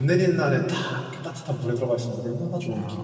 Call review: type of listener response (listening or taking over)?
taking over